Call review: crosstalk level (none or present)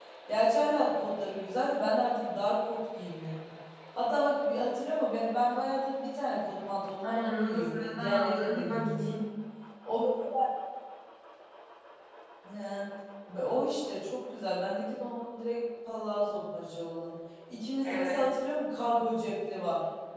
present